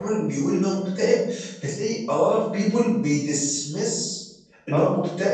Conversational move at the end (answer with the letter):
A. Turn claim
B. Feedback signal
B